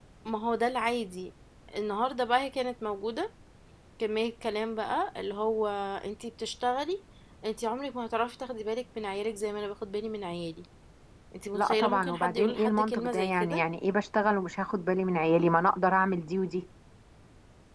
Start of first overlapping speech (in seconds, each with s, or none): 11.5 s